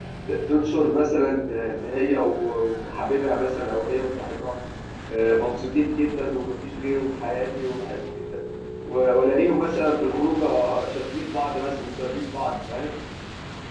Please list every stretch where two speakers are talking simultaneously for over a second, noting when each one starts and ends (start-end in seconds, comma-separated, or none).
none